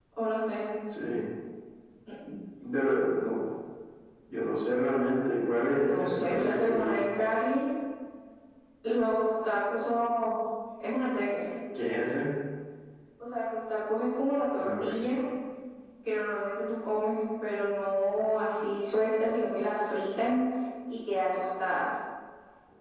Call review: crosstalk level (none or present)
present